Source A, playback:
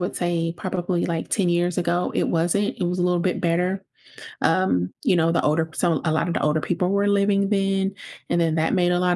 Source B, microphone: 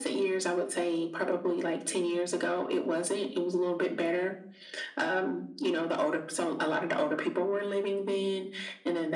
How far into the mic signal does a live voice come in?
none

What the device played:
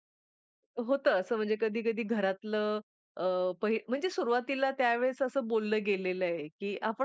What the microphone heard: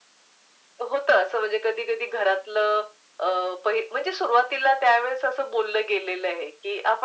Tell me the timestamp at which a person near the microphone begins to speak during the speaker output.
none

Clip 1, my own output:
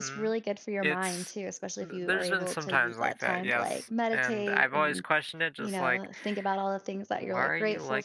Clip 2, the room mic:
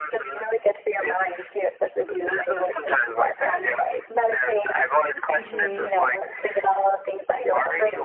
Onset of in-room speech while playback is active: 5.3 s

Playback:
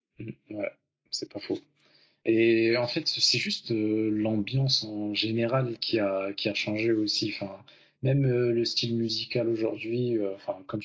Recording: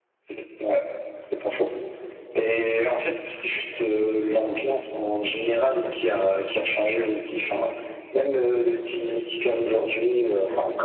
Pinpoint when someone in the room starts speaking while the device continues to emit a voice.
none

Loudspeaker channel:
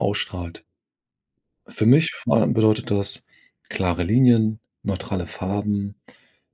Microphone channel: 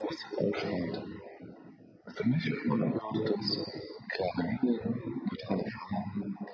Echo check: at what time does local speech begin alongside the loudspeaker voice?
none

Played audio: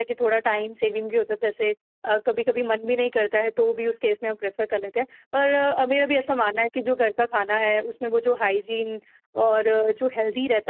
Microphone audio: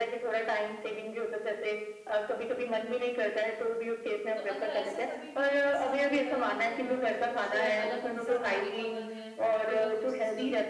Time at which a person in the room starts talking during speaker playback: 4.3 s

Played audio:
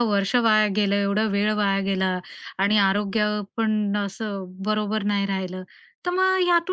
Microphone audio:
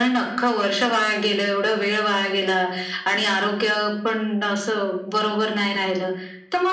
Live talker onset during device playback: none

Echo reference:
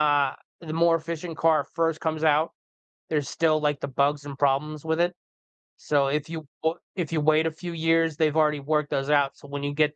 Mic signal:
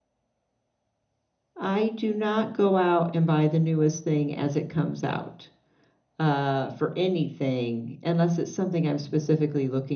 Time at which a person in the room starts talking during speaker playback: 1.6 s

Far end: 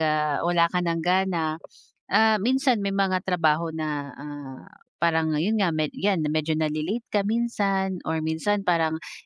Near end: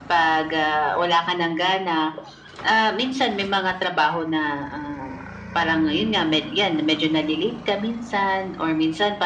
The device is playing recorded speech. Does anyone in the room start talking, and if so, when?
none

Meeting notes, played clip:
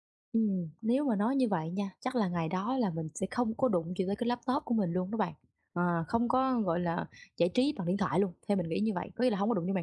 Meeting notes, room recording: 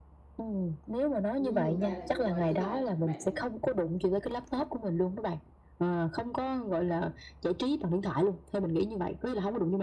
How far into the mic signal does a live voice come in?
1.3 s

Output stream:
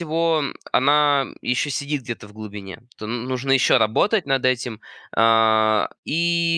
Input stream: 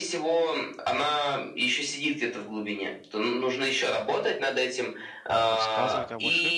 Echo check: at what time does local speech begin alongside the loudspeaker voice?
5.4 s

